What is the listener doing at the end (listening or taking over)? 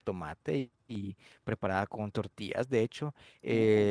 listening